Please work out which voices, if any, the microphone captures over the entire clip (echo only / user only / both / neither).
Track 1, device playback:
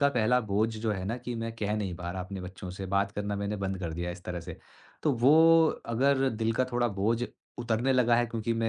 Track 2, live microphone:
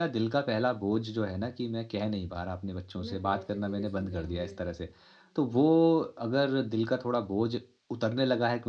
both